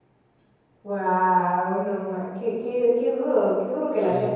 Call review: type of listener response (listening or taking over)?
taking over